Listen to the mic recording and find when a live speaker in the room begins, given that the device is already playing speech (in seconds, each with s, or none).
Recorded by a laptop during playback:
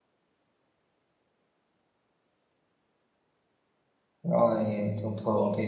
4.2 s